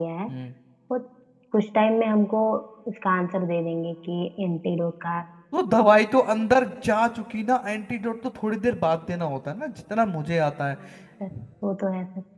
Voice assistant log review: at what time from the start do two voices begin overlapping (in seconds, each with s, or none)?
none